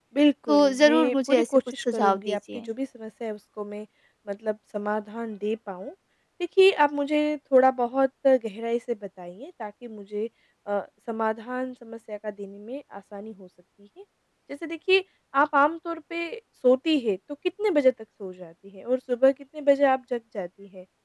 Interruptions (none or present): present